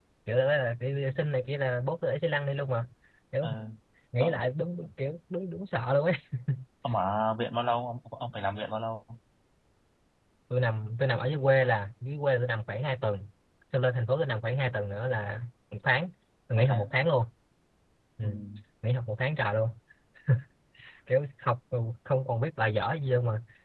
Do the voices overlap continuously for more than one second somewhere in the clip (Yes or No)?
No